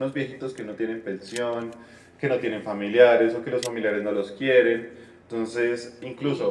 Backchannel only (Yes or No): No